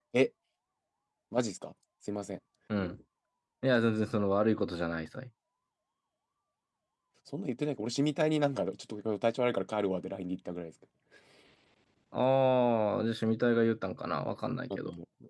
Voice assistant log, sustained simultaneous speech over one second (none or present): none